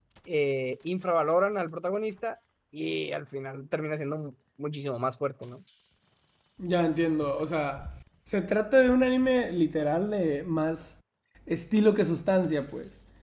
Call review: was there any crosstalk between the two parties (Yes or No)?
No